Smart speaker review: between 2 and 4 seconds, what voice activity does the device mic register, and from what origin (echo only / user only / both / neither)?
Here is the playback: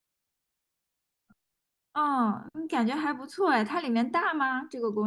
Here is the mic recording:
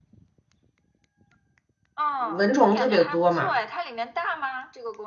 both